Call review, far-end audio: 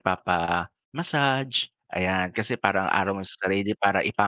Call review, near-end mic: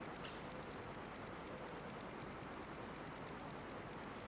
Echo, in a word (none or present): none